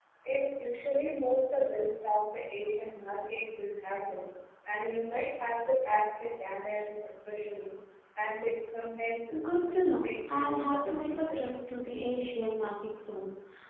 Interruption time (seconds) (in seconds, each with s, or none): 9.6 s